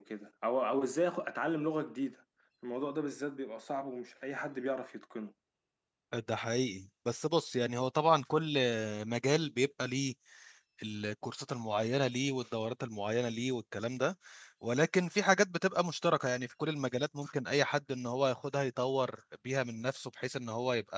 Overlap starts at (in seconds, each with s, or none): none